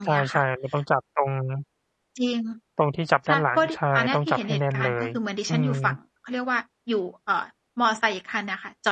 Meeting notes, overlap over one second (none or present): present